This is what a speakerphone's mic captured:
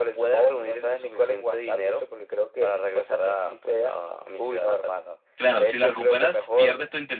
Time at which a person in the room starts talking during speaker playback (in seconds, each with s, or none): 5.3 s